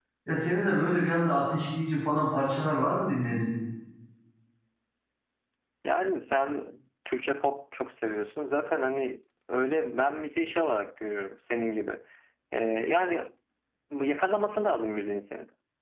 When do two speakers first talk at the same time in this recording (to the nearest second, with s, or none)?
none